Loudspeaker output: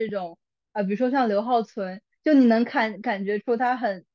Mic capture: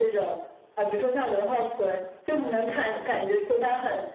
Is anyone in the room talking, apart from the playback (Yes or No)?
No